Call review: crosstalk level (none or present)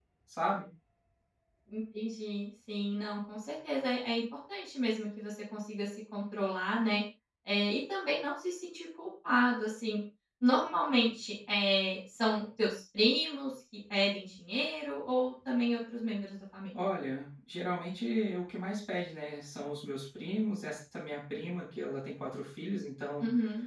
none